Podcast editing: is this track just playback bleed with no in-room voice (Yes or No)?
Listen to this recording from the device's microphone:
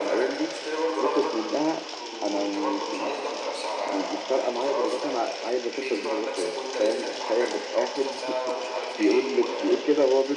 No